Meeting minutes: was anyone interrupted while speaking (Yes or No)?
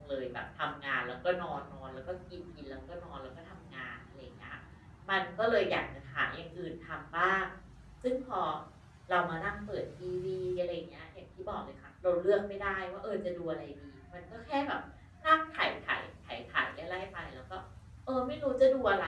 No